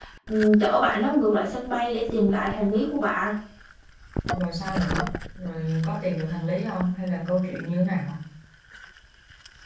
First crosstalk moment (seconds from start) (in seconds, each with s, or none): none